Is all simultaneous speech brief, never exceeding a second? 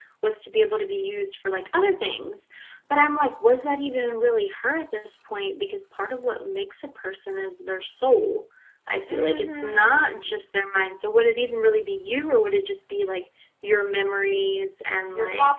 No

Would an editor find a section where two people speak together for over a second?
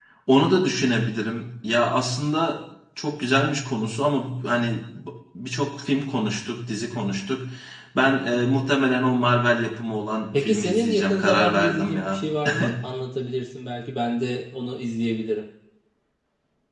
Yes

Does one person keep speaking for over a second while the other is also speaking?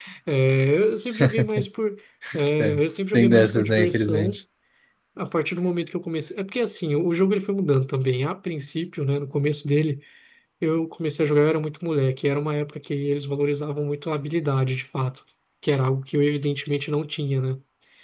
Yes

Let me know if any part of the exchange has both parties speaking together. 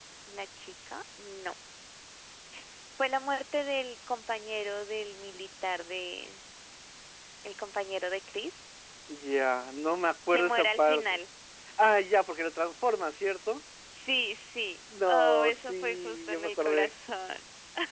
Yes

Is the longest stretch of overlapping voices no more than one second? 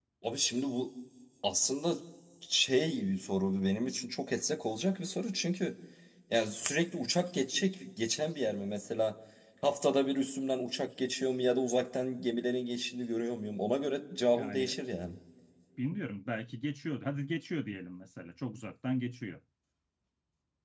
Yes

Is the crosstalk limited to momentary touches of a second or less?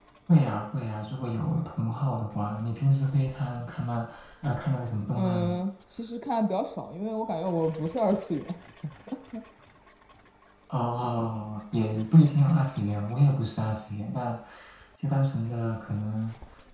Yes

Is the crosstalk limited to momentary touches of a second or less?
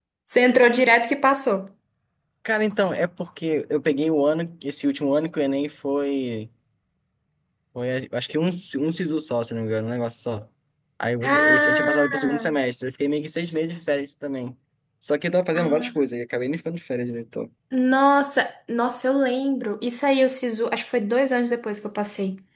No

